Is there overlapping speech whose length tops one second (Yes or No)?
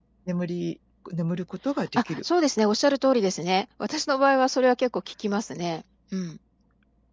No